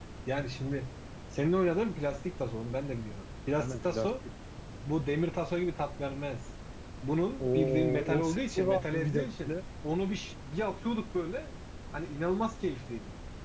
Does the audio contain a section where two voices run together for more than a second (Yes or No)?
Yes